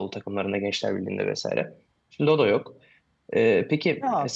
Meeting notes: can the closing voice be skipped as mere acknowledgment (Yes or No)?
No